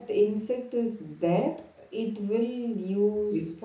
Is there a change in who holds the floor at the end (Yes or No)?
Yes